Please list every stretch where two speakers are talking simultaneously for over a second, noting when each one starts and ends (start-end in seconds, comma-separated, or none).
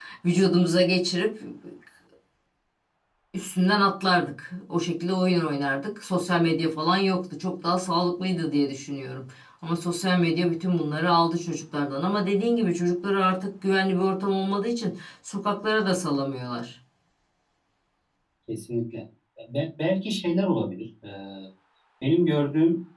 none